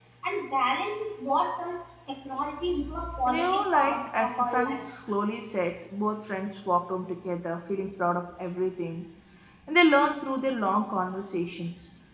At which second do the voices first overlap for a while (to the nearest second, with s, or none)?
3 s